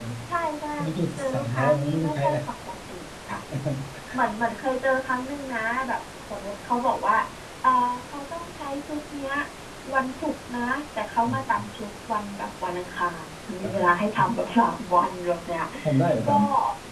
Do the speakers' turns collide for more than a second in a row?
Yes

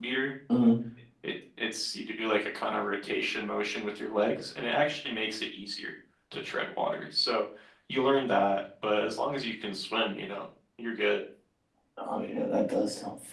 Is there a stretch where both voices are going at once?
No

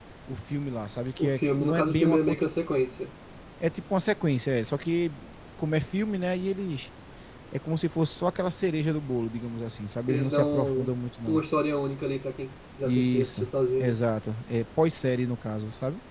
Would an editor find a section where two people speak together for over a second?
Yes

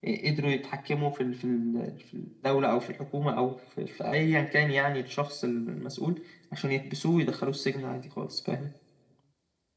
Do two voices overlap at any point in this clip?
No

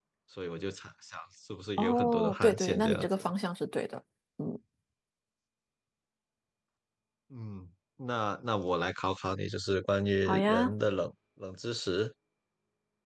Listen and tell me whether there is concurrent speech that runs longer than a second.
Yes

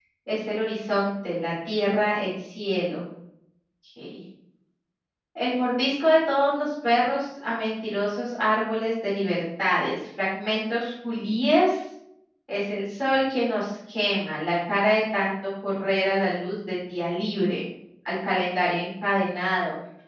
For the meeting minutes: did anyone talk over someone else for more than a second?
No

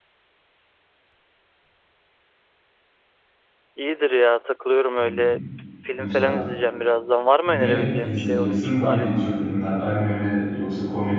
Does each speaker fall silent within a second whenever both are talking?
No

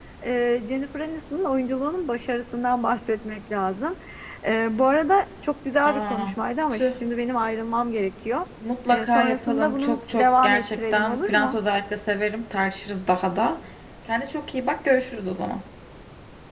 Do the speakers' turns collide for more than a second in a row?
Yes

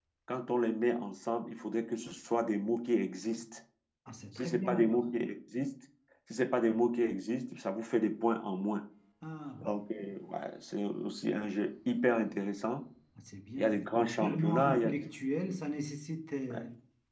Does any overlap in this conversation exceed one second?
Yes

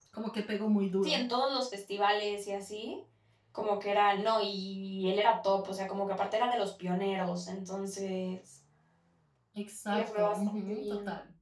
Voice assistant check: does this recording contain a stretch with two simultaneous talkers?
Yes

